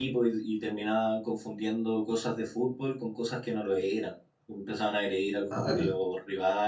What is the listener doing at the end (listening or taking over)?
listening